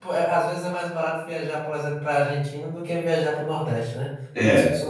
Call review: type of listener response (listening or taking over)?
taking over